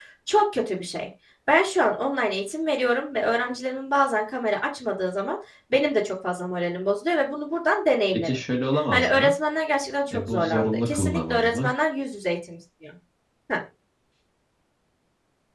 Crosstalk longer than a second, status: present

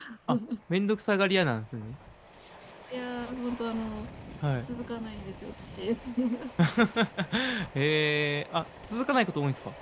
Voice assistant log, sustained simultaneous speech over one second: none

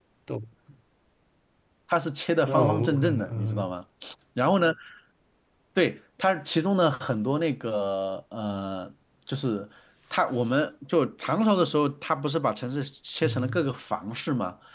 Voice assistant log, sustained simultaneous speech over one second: present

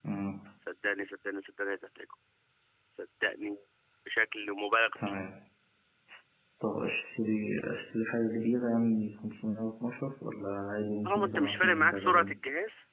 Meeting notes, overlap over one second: present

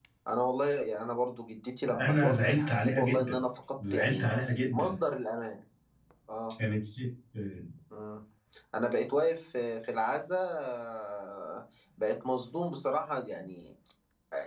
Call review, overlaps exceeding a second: present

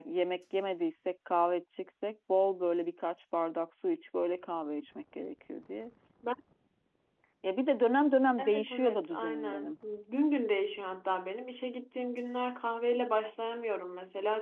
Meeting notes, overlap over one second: present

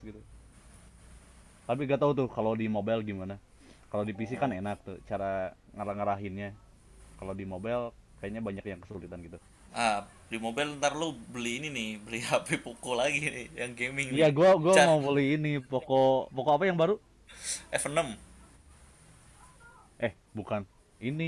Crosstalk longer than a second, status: none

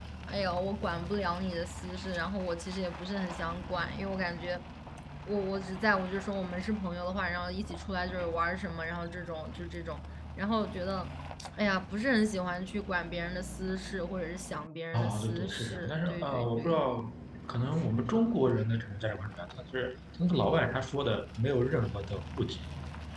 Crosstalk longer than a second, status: present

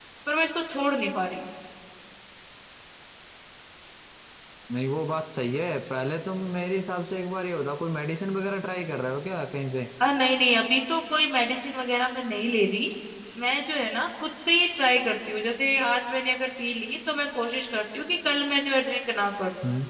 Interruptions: none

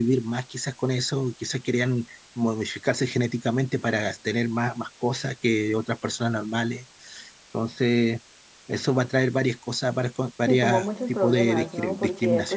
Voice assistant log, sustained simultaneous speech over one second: present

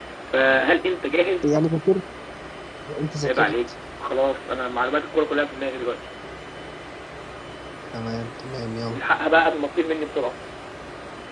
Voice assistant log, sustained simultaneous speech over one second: none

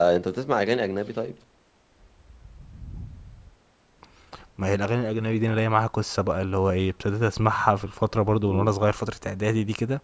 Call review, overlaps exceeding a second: none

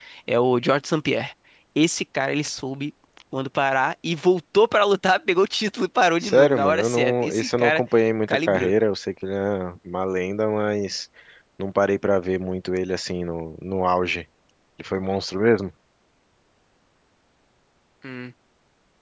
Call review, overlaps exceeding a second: present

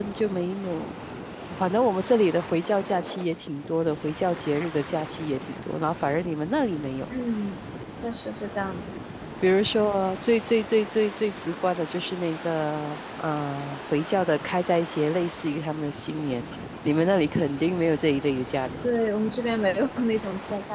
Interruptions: none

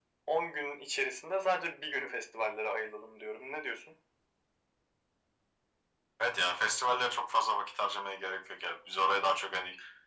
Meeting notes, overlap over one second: none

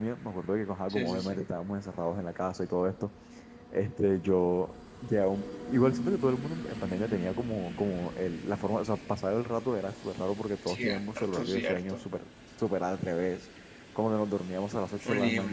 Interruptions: present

